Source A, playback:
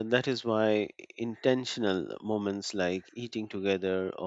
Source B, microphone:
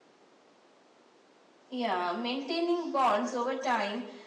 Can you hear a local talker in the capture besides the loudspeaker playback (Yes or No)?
Yes